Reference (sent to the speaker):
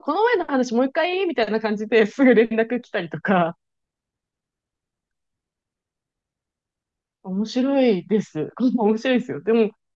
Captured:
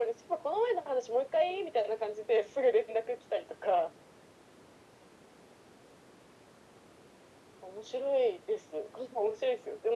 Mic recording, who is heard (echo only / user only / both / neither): echo only